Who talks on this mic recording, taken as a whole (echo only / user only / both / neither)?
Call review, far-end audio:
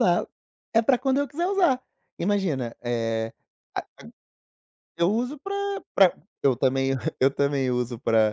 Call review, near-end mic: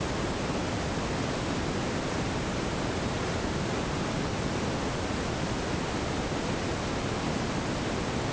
neither